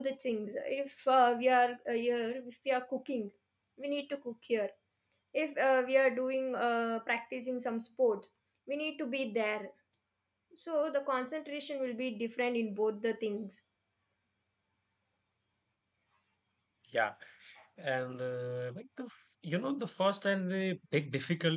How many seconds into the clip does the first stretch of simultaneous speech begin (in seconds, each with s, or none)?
none